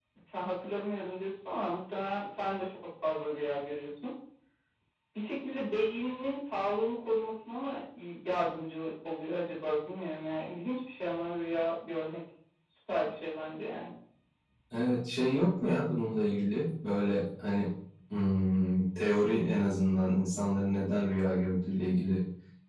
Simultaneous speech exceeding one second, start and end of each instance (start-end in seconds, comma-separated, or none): none